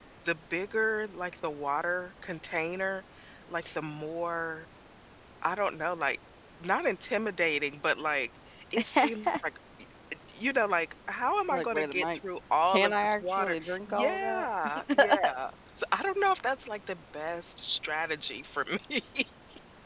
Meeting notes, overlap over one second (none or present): present